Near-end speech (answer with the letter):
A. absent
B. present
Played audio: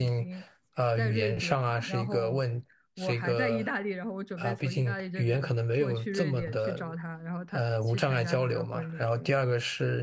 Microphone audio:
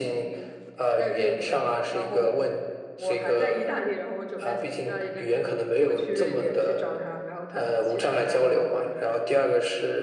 A